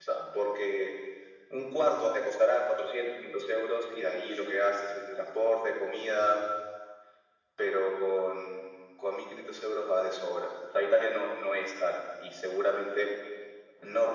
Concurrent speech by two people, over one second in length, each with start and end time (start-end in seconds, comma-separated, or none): none